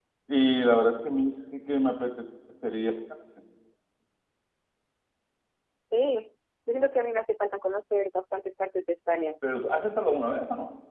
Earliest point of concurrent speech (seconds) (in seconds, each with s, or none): none